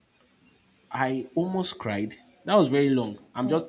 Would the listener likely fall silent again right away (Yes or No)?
Yes